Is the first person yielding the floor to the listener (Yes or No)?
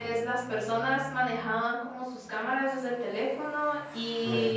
No